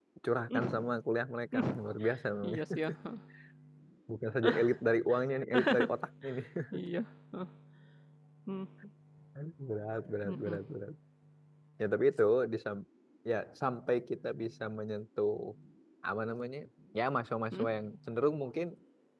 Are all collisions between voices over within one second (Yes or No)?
Yes